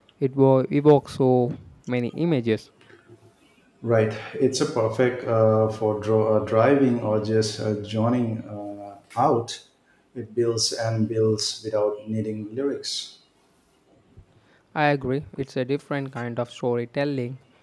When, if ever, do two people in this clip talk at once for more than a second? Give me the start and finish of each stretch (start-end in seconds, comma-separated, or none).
none